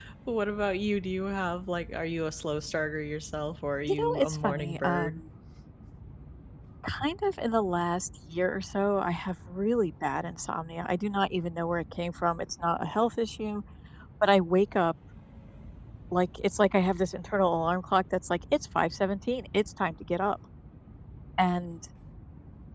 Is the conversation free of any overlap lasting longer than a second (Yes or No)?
No